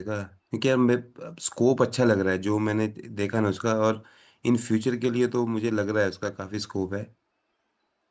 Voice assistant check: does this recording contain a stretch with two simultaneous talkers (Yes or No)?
No